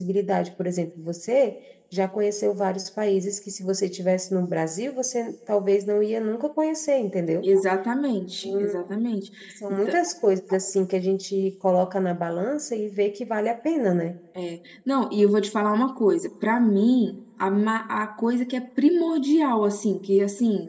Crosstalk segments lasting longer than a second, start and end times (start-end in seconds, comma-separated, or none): none